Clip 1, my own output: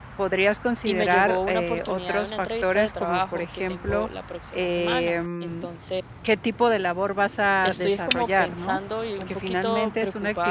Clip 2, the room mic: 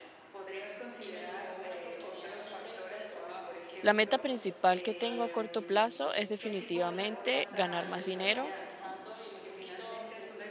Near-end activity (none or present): present